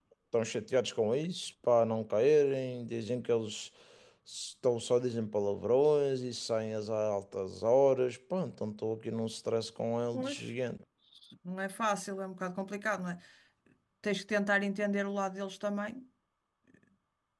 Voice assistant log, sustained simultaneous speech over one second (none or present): none